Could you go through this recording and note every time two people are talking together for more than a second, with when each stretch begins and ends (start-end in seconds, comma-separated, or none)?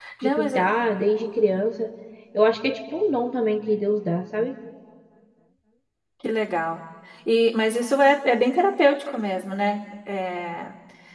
none